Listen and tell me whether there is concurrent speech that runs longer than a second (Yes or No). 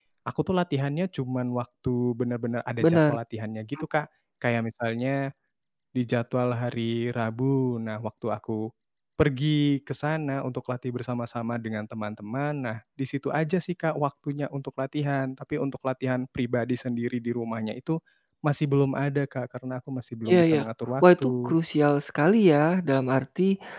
No